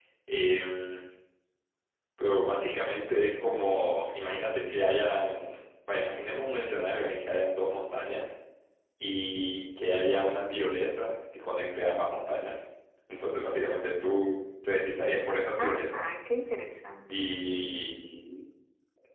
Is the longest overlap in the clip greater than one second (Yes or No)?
No